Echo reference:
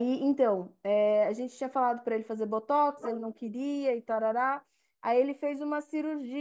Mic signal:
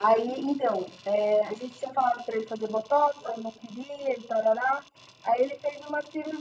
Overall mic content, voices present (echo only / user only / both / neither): echo only